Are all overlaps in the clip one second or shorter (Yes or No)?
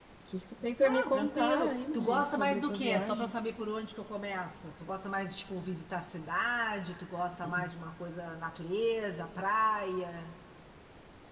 No